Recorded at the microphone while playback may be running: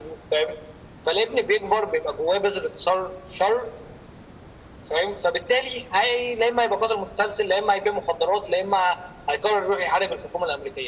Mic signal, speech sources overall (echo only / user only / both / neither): echo only